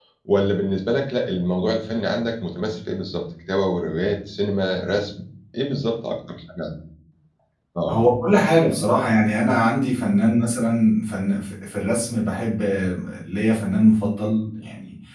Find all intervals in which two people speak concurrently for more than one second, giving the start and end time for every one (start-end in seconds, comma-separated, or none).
none